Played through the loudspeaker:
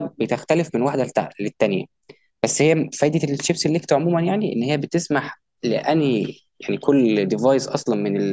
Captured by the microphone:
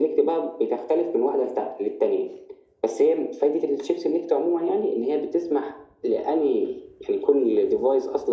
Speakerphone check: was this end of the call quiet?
Yes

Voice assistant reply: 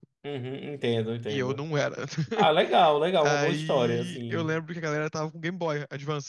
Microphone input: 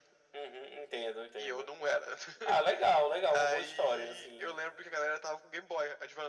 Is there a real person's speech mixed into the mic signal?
No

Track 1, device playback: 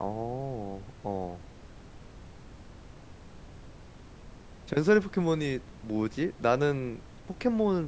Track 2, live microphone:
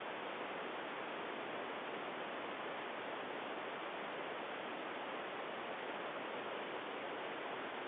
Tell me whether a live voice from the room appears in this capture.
No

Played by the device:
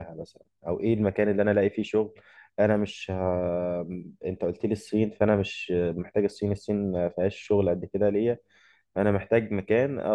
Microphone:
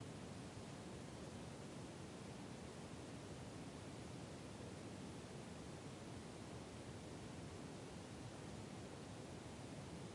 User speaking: No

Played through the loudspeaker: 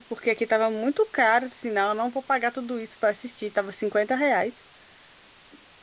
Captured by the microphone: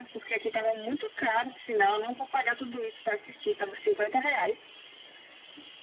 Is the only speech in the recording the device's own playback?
Yes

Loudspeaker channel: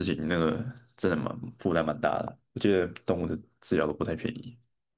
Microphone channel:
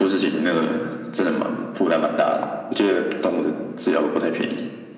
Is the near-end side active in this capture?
No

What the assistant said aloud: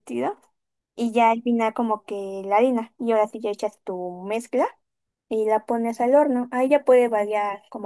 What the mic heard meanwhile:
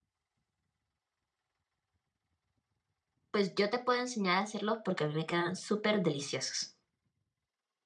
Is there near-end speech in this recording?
Yes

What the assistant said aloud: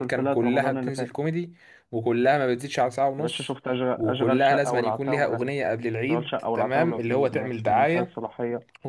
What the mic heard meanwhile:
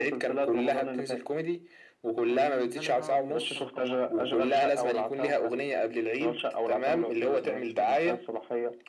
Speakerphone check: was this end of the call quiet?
No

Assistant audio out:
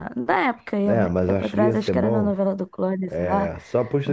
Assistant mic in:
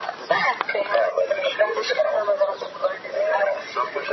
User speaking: No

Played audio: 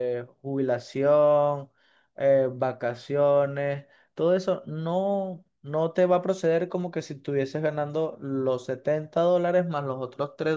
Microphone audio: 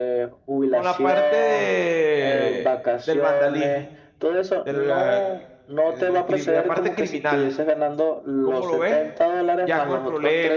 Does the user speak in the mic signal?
Yes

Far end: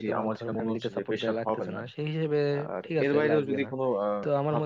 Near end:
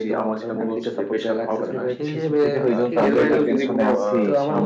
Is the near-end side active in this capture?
Yes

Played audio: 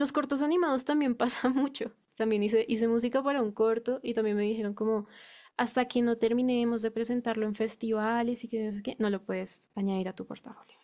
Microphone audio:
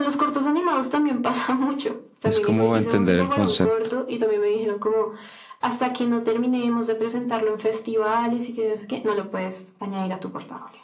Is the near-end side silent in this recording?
No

